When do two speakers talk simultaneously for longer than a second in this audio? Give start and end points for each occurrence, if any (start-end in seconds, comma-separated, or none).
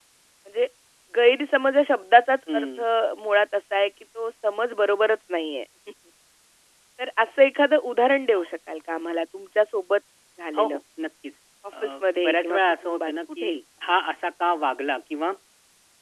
12.2-13.5